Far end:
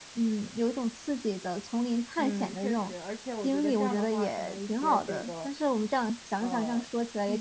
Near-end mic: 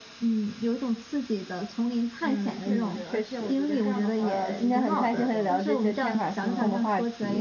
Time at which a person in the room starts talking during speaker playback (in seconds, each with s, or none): 2.6 s